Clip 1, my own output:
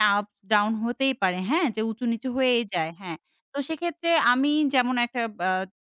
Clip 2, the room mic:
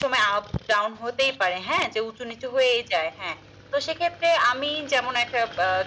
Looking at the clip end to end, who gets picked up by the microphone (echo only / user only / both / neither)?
echo only